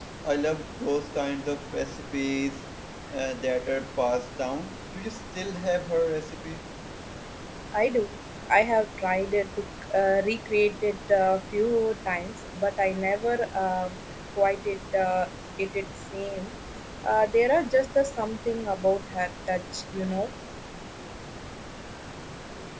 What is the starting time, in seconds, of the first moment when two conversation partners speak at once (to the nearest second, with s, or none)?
none